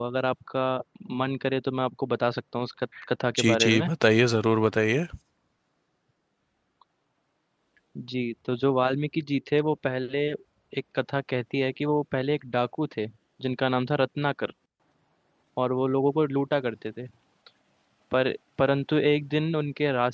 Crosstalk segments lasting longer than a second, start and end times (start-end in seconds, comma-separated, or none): none